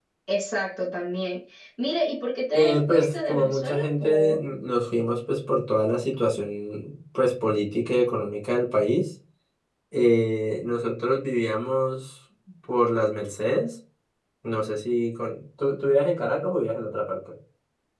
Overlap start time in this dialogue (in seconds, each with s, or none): 2.5 s